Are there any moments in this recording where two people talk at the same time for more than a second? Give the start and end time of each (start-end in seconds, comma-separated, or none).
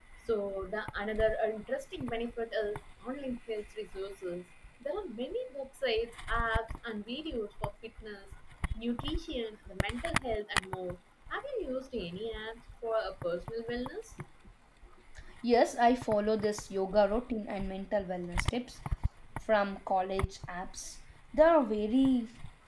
none